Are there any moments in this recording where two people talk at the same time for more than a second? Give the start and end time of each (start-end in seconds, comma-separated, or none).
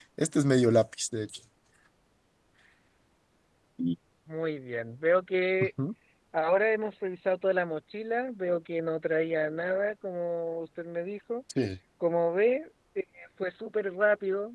none